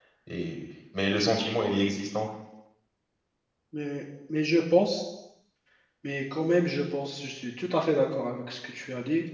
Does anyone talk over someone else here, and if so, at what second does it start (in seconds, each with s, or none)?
none